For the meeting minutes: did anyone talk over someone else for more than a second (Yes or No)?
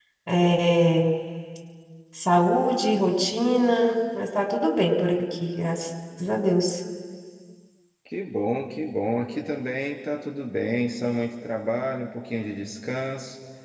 No